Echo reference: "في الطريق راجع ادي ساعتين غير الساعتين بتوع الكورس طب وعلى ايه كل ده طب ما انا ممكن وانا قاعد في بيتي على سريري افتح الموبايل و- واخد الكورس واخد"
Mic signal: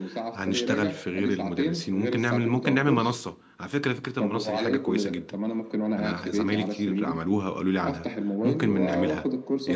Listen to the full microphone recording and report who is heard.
both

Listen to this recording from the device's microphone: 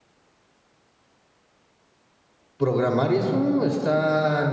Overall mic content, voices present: user only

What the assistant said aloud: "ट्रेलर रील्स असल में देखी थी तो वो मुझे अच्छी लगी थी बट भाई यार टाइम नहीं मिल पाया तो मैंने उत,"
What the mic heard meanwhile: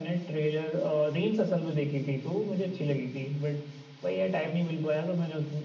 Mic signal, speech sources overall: echo only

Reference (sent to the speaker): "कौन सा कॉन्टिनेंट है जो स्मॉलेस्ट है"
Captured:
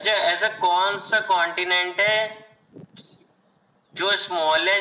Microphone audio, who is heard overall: echo only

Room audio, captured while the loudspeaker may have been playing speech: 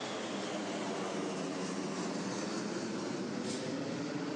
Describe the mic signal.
neither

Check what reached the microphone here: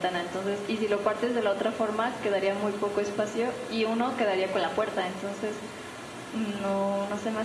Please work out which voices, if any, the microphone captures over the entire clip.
echo only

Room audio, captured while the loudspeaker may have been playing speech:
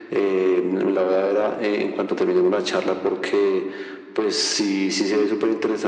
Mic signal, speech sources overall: echo only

